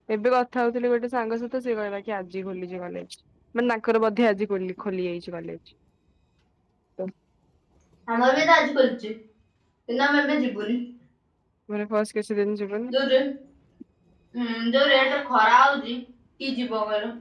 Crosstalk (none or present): none